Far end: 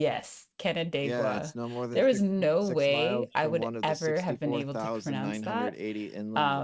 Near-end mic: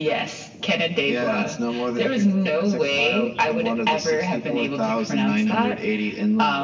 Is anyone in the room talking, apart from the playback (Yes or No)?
No